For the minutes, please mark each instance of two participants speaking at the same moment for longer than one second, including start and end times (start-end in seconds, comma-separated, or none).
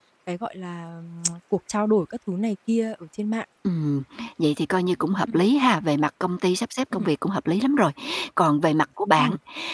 none